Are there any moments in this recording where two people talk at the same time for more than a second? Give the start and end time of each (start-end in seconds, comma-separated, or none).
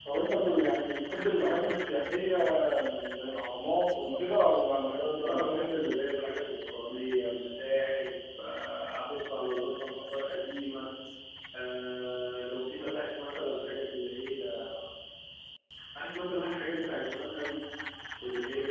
none